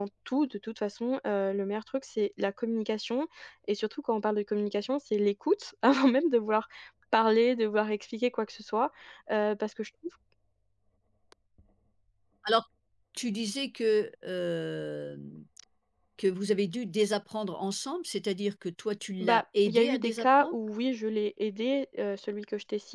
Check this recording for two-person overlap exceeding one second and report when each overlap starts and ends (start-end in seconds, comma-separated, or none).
19.2-20.6